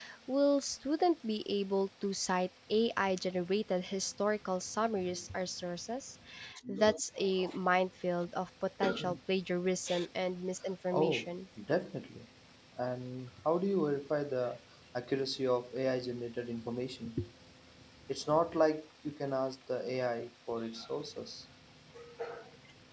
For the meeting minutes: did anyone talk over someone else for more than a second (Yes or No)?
No